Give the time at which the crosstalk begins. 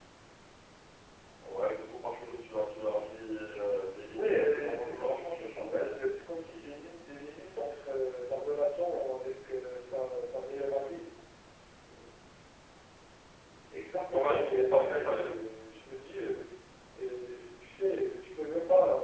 4.1 s

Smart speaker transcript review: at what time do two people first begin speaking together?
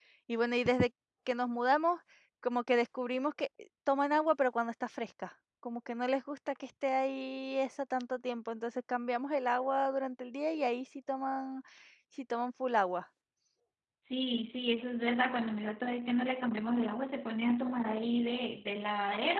none

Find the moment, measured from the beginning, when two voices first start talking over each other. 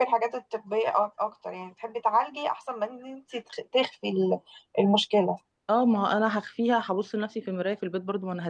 none

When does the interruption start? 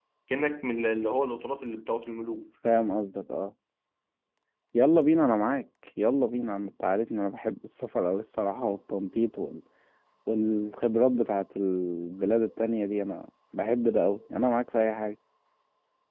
none

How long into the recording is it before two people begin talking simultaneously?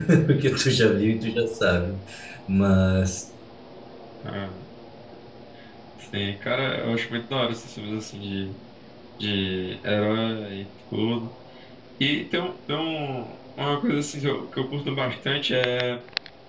none

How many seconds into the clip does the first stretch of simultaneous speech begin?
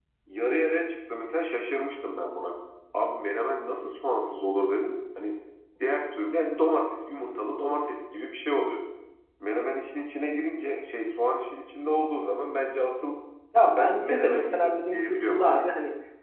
13.6 s

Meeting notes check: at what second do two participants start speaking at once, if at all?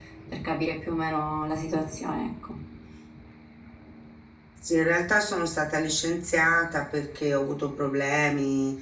none

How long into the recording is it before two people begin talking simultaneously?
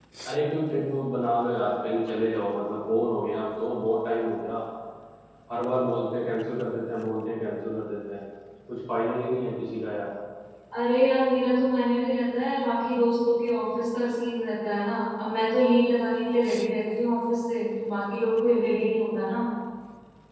none

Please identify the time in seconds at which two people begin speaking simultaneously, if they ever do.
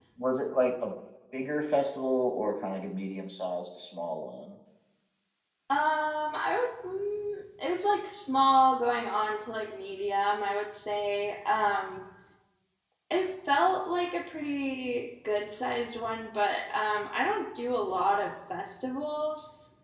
none

